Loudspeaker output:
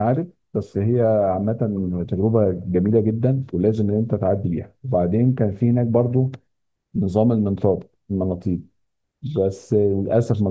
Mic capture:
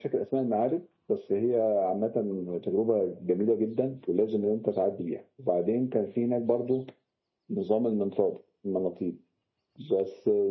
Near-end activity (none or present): none